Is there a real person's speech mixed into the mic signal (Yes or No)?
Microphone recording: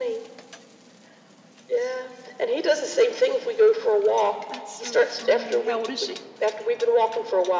Yes